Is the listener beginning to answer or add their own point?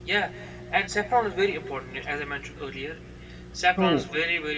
No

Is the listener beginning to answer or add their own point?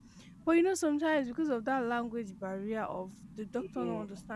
No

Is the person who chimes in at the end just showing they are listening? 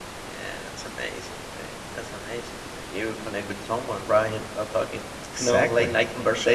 Yes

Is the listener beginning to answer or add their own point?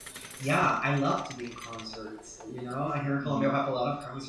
No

